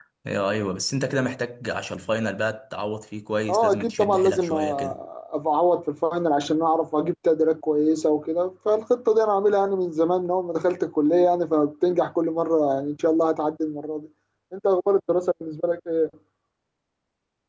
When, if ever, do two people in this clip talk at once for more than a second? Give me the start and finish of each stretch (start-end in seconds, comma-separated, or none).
3.5-5.0